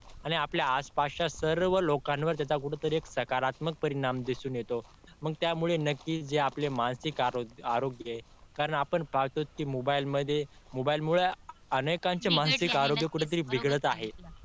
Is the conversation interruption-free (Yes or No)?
No